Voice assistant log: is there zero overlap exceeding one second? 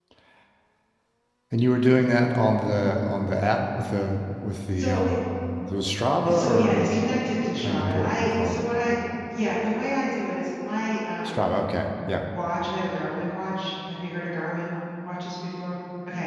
No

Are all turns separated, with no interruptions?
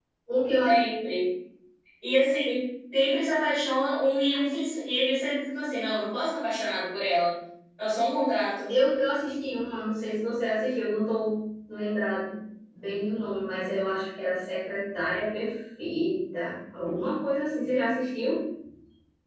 Yes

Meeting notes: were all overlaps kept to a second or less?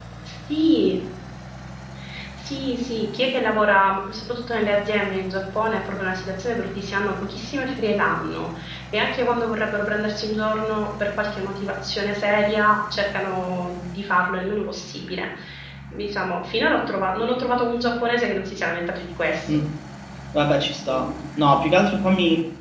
Yes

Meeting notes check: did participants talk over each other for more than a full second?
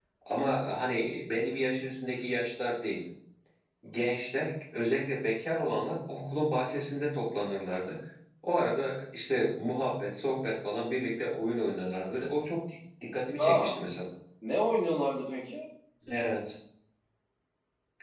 No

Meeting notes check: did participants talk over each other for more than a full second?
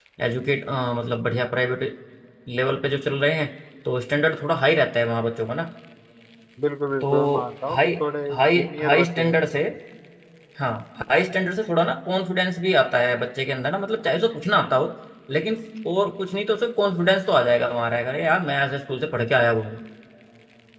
Yes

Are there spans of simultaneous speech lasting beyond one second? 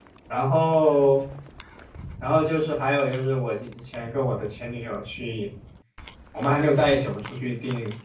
No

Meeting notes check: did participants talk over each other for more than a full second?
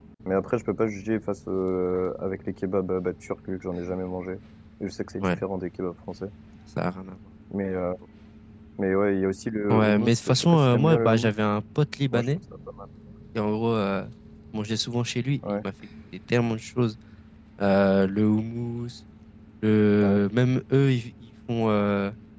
Yes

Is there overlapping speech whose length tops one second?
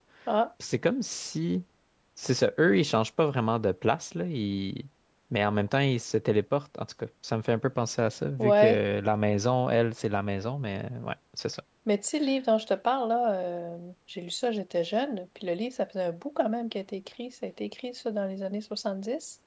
No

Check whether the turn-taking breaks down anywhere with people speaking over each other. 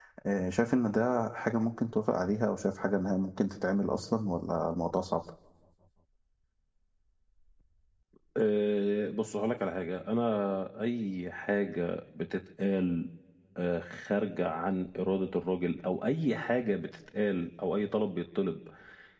No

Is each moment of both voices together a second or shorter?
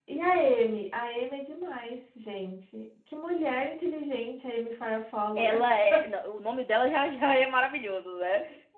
Yes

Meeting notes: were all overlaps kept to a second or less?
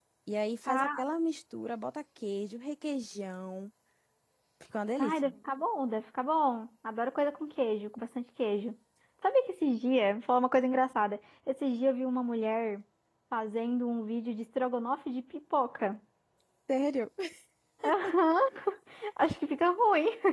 Yes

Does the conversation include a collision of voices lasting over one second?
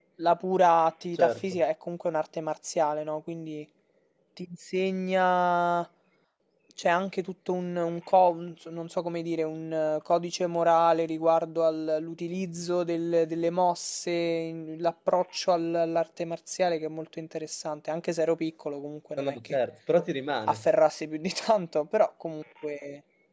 No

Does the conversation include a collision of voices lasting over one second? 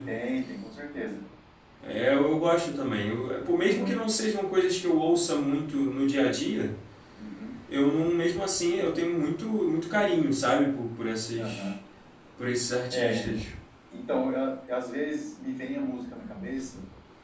No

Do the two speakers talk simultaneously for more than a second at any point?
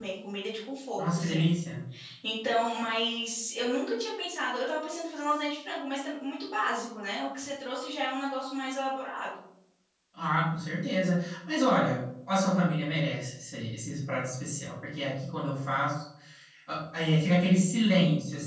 No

